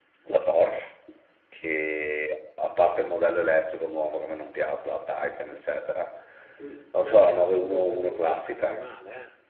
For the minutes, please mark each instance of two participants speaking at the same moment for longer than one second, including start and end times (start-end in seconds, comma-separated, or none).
7.0-8.8